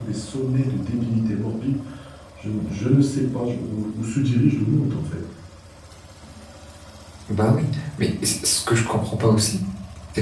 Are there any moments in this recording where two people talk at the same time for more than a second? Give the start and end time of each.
none

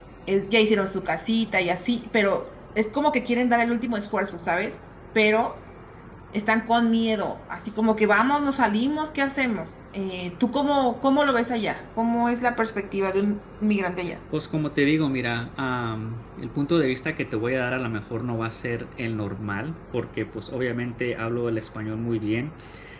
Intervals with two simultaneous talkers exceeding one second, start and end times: none

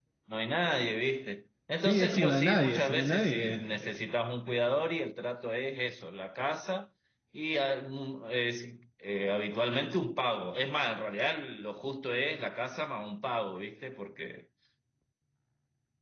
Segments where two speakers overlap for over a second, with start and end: 1.9-3.6

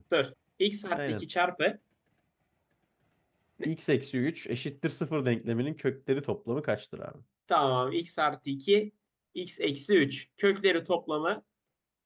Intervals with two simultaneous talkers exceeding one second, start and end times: none

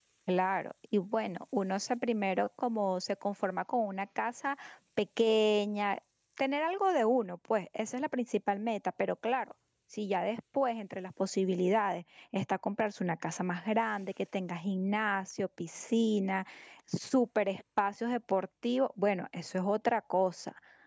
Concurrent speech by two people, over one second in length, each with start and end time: none

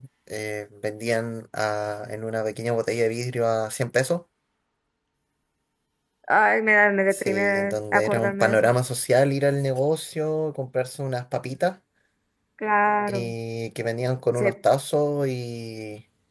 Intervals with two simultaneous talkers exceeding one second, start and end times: 7.1-8.7

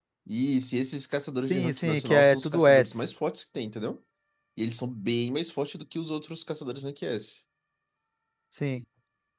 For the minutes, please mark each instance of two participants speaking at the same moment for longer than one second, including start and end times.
1.5-2.9

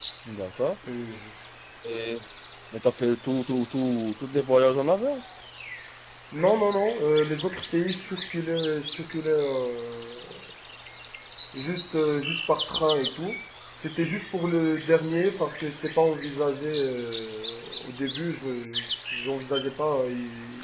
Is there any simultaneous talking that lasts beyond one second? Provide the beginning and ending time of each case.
none

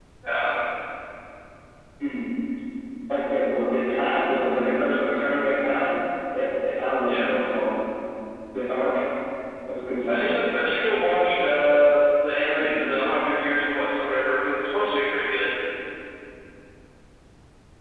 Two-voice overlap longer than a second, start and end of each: none

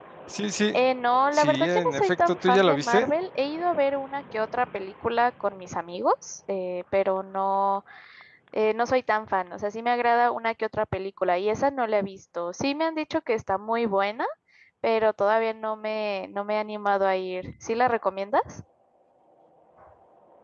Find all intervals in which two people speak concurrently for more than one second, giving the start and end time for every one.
1.3-3.1

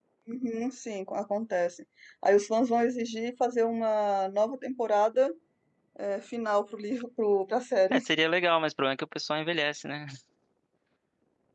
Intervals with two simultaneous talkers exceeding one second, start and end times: none

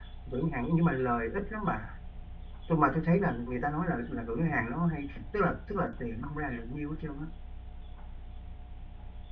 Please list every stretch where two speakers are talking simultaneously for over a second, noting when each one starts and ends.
none

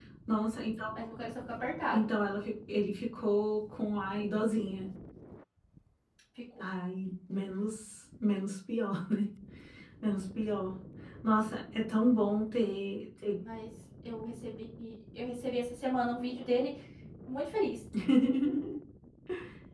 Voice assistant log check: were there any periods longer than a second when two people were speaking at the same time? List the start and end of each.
none

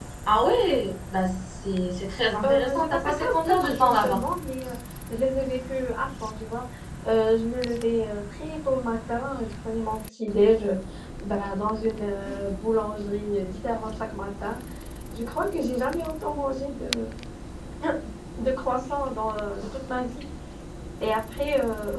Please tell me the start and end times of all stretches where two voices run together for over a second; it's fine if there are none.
2.5-4.2

